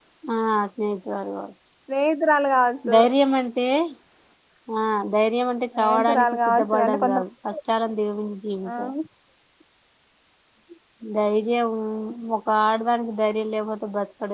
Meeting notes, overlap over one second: present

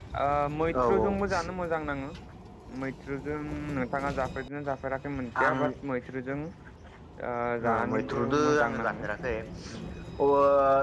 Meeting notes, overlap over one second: present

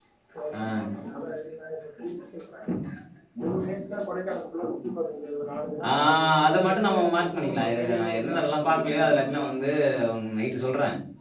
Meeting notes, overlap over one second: present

